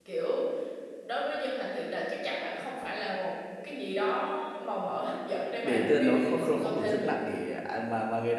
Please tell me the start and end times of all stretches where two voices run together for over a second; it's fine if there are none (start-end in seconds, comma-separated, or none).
5.6-7.2